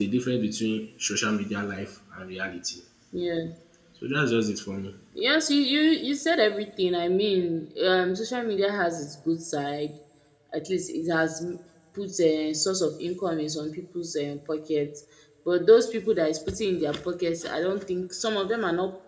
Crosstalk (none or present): none